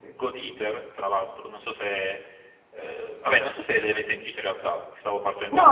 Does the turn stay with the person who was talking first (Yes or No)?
No